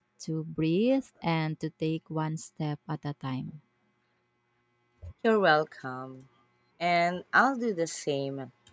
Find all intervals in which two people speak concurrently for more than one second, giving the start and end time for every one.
none

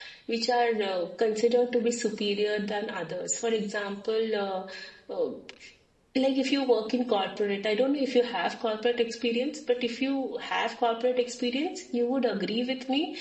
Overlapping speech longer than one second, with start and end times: none

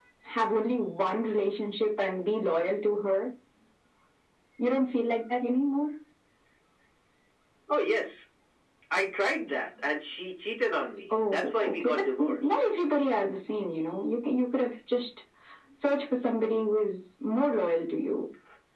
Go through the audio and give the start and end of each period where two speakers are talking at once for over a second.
11.1-12.6

